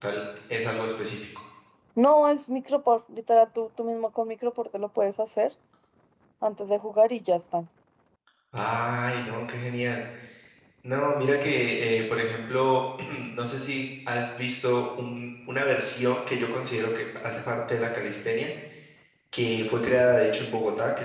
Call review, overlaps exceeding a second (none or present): none